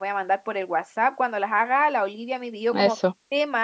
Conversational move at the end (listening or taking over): listening